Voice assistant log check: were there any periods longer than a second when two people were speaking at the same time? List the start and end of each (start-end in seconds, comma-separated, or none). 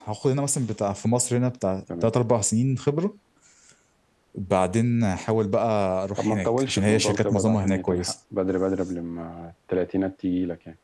6.2-8.1